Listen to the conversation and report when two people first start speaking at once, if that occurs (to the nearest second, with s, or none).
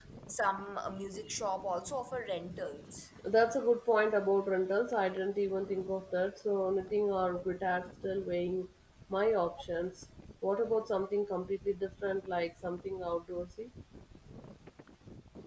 none